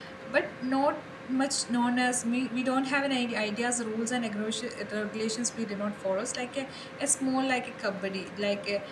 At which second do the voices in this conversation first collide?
none

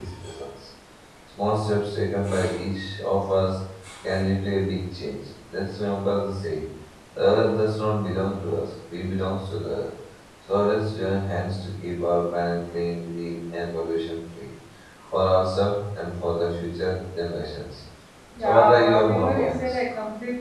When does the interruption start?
18.4 s

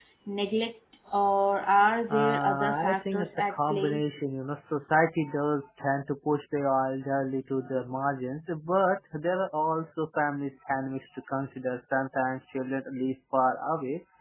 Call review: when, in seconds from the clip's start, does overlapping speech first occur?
2.1 s

